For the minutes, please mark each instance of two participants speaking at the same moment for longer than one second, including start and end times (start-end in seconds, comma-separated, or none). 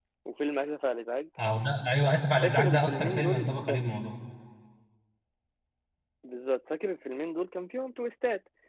2.4-3.9